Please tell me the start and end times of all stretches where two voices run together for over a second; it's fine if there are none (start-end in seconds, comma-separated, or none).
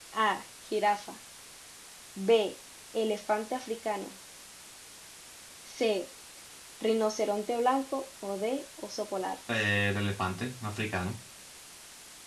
none